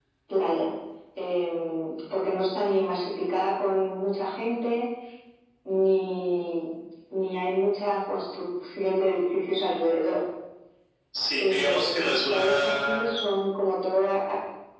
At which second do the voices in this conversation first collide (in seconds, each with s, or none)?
11.4 s